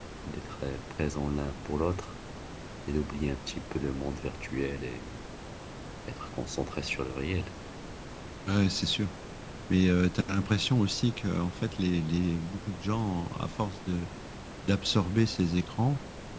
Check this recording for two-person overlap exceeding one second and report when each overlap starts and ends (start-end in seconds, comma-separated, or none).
none